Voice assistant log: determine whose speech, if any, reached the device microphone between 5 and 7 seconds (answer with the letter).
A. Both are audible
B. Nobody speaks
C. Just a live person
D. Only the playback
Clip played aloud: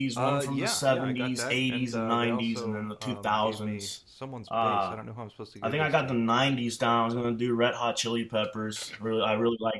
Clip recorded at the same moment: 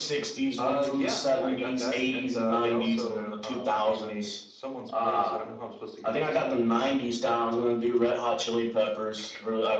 D